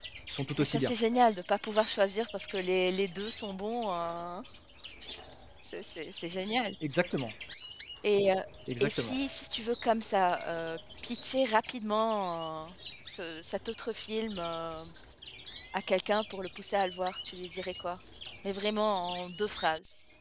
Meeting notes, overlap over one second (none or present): none